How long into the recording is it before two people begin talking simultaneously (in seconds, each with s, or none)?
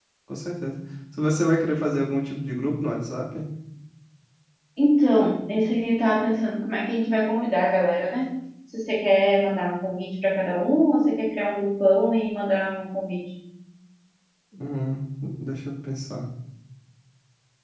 none